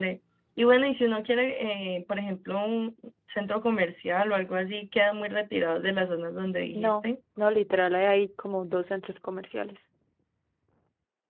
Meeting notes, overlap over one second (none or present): none